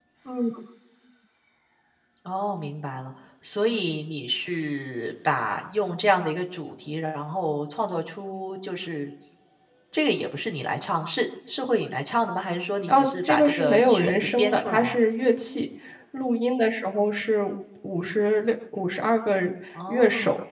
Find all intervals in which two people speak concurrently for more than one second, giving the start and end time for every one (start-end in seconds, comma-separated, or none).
12.9-15.0